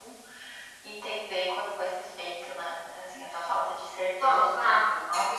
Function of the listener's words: taking over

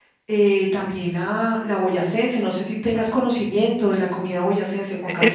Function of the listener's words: taking over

